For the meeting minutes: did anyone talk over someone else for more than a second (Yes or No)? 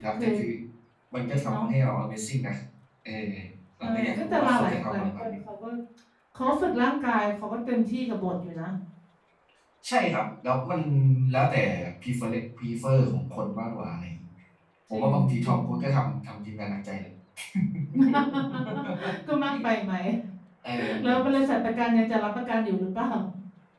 Yes